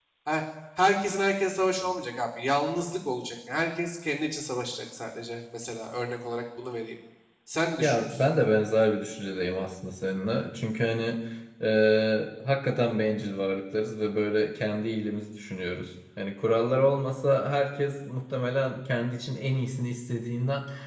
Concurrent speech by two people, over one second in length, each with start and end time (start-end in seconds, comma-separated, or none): none